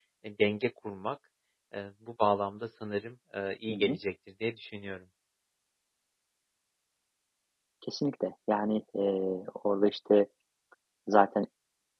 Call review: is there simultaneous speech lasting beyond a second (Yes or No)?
No